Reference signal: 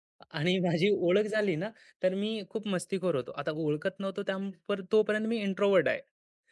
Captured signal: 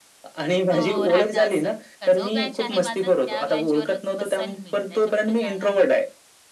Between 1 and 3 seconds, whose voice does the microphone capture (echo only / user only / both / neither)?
both